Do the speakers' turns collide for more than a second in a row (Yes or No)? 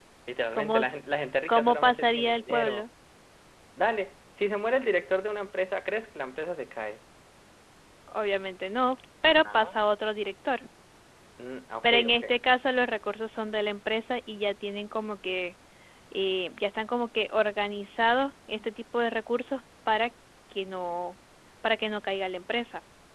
Yes